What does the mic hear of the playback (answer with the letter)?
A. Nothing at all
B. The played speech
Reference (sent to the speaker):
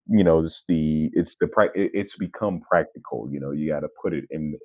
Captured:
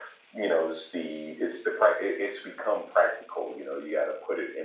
B